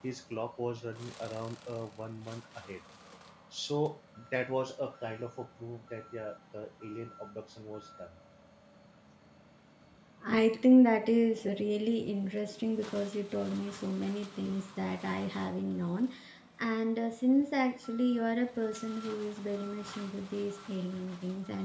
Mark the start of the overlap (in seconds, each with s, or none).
none